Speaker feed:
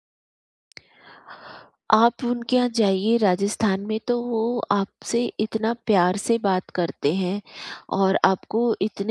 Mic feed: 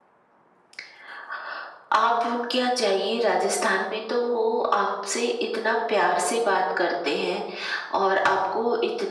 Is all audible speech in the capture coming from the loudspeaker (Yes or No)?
Yes